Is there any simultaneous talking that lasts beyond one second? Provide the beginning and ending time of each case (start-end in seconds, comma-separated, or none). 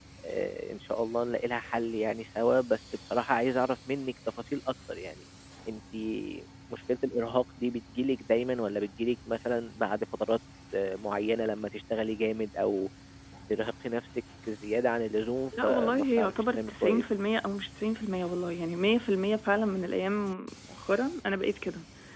15.6-17.0